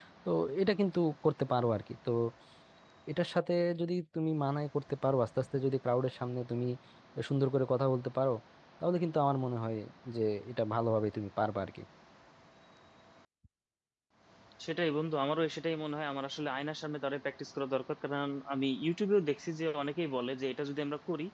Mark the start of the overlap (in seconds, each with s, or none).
none